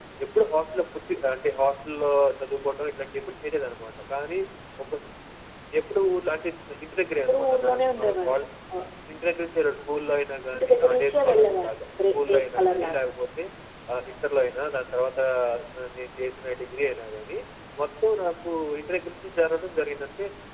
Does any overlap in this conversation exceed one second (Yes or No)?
Yes